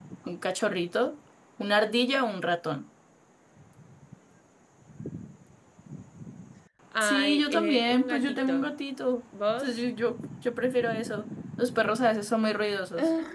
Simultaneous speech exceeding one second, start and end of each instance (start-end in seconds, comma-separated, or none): 7.0-8.7